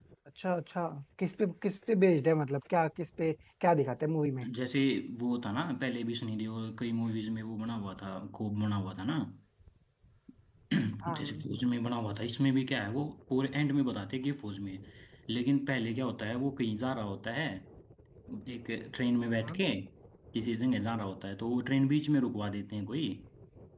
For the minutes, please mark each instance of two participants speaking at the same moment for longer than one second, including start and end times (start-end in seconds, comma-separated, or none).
none